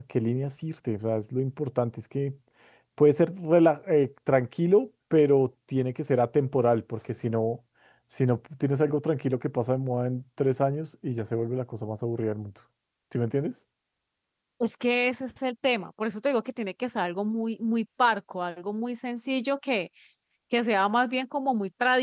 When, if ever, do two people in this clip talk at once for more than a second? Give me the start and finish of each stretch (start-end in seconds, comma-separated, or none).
none